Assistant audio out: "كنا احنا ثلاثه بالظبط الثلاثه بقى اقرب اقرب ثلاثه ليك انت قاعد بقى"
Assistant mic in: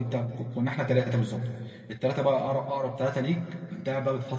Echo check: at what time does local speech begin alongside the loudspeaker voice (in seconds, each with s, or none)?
none